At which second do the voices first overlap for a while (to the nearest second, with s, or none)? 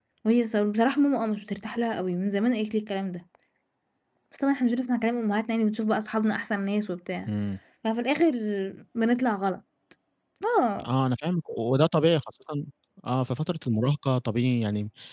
none